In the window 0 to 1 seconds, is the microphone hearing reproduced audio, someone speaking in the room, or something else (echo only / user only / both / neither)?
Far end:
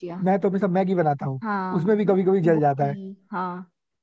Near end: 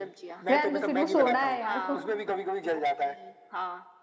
both